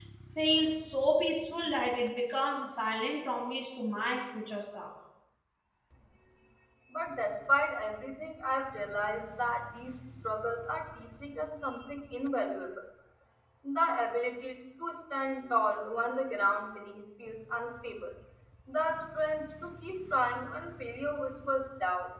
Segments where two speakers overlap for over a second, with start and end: none

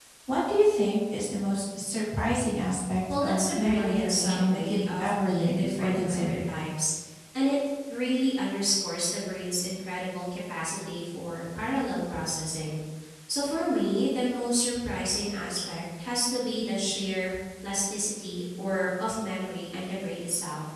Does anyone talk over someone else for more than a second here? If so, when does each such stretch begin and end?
3.2-6.5

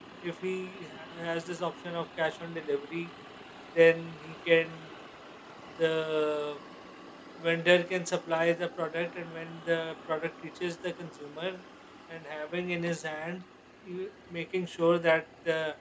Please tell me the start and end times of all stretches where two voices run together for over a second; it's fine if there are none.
none

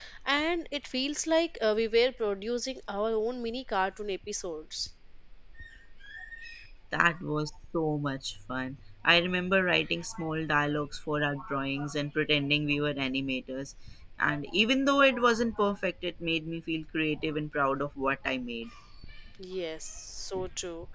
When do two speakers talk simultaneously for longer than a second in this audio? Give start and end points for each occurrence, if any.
none

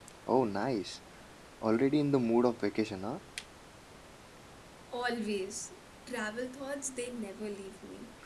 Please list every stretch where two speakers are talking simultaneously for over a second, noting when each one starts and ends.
none

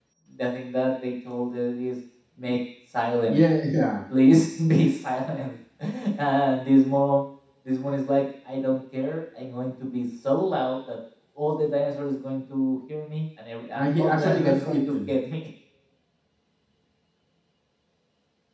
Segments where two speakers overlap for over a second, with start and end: 13.7-15.1

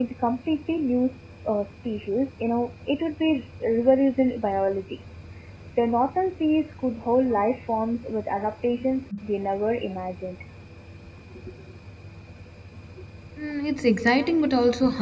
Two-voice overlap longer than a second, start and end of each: none

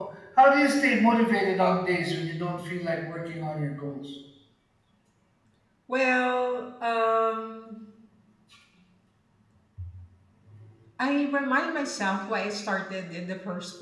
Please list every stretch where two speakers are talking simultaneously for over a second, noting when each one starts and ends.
none

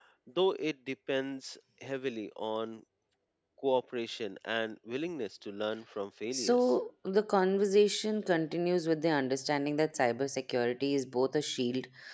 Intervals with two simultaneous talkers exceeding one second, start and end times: none

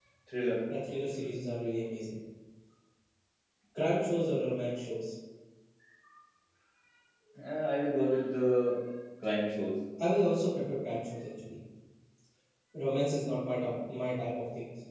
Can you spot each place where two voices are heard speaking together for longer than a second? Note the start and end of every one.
none

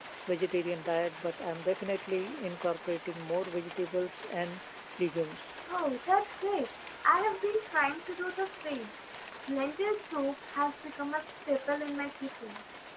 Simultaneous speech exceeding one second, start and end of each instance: none

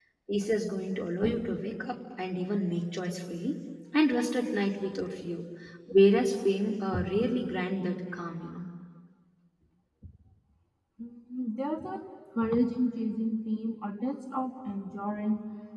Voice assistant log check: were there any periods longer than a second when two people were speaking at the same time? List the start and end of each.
none

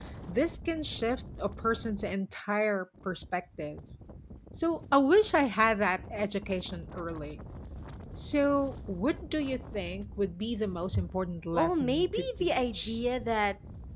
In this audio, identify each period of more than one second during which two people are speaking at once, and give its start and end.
11.5-13.0

